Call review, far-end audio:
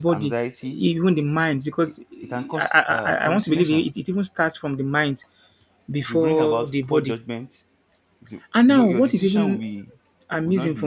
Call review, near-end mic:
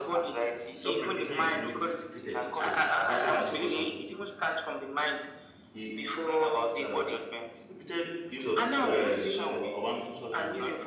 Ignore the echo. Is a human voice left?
Yes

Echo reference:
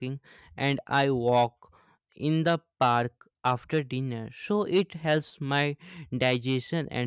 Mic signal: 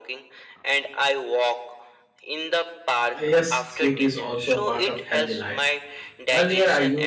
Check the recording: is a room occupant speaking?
Yes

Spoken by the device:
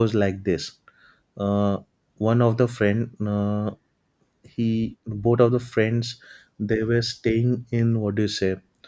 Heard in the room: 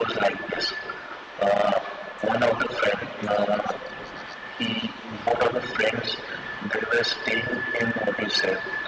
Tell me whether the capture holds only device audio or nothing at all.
Yes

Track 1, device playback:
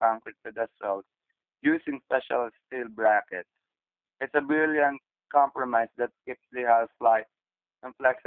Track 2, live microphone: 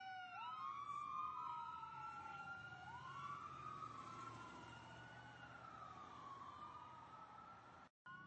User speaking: No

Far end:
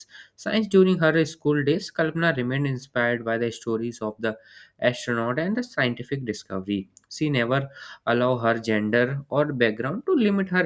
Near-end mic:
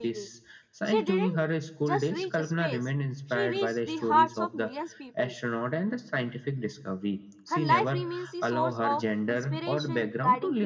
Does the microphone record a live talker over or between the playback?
Yes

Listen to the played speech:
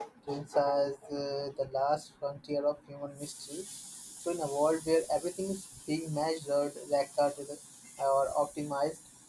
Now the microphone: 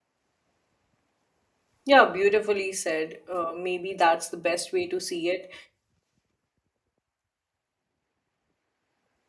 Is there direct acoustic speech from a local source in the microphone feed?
Yes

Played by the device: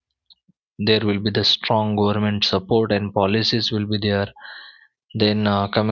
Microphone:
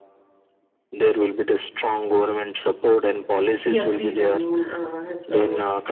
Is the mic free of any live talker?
No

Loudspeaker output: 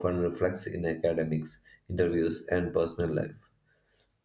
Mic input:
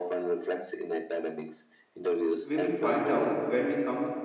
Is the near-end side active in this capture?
Yes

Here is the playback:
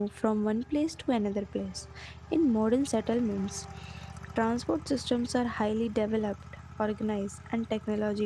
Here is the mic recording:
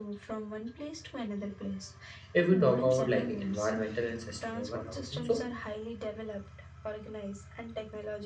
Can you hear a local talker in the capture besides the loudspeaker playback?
Yes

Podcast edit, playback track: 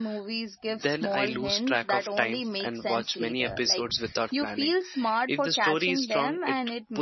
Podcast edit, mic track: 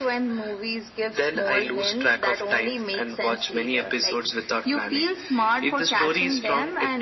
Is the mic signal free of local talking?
Yes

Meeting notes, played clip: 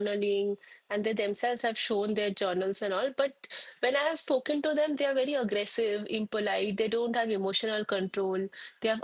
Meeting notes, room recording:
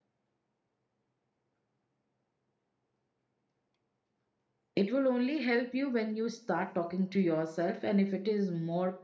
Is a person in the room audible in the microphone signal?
Yes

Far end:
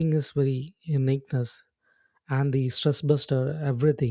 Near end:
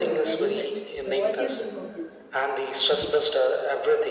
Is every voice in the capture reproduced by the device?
No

